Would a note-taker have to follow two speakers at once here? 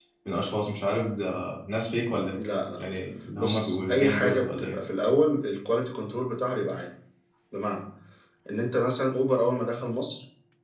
Yes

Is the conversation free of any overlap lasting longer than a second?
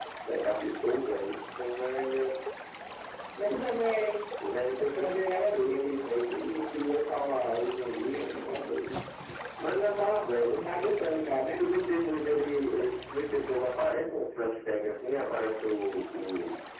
Yes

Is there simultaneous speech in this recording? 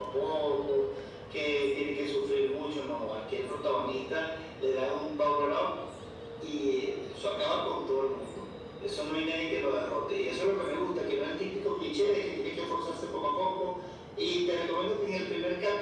No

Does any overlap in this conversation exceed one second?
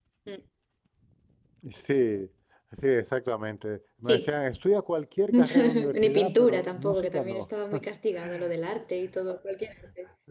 Yes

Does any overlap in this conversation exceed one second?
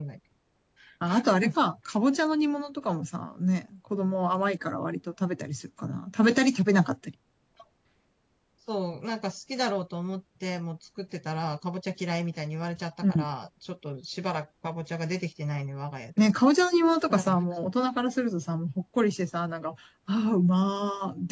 No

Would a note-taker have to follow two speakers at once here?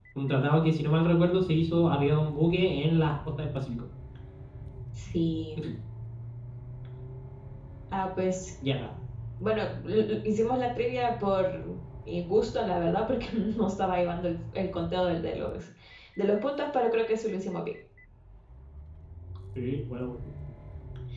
No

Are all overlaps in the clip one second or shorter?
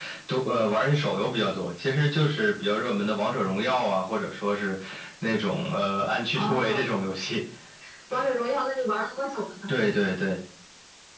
Yes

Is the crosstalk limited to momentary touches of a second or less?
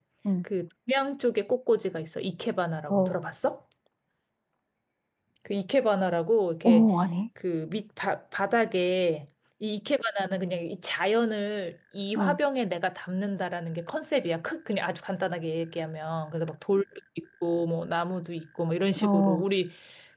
Yes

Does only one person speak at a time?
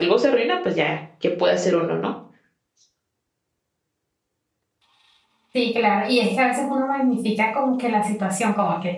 Yes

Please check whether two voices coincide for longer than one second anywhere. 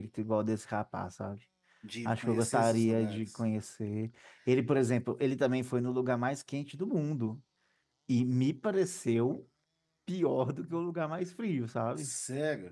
Yes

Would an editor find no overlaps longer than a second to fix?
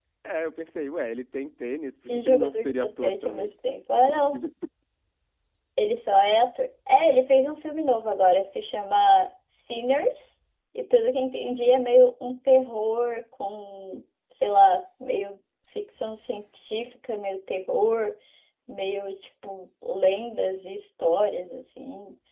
No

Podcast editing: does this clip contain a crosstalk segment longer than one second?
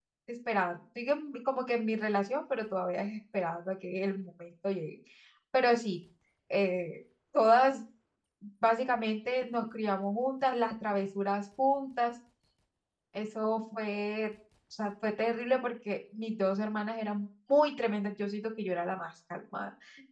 No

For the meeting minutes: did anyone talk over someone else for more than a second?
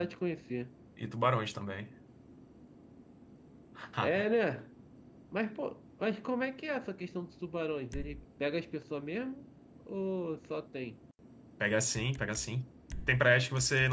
No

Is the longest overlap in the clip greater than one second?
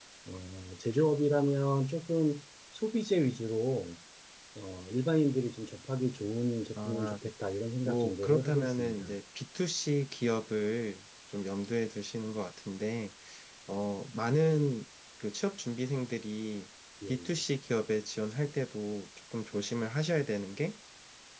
Yes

